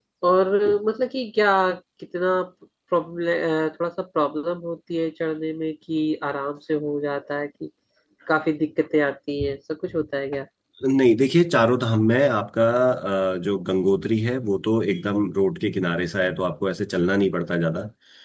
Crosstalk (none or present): none